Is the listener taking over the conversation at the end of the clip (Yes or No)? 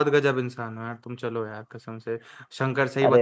No